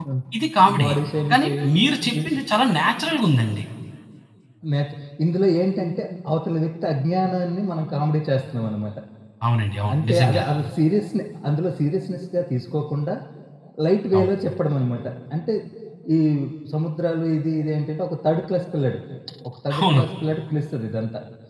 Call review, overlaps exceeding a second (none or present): none